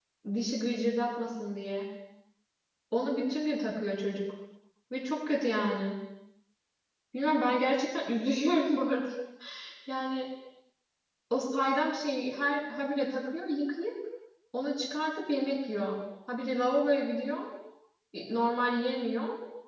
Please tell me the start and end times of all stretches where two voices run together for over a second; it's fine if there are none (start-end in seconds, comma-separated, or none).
none